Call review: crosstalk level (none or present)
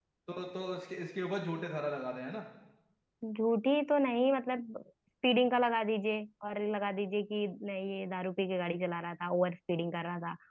none